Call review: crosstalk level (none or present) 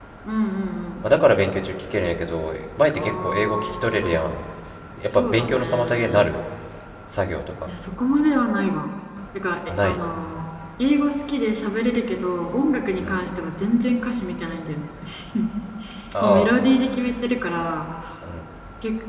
present